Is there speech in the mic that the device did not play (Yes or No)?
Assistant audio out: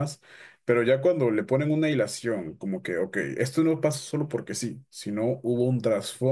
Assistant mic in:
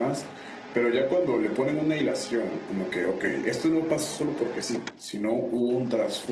No